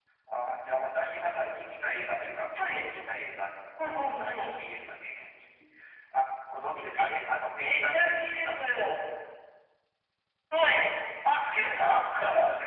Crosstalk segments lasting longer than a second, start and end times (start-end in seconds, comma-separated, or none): 7.6-8.9